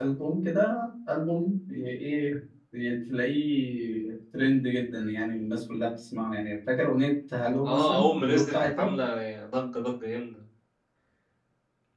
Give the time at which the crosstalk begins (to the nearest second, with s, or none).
8 s